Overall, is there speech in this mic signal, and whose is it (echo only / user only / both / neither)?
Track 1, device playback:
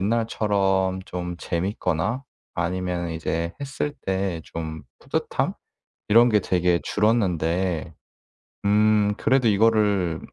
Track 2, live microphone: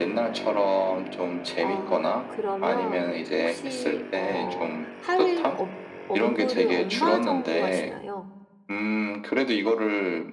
both